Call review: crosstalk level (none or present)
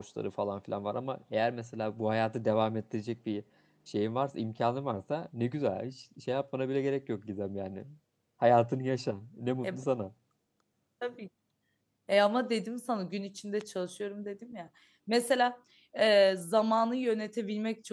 none